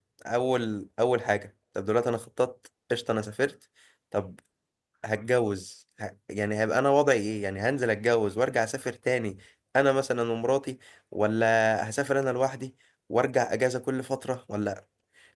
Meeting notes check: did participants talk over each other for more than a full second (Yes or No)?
No